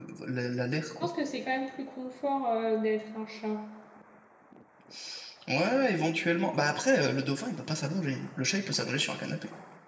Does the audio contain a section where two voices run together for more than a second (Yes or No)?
No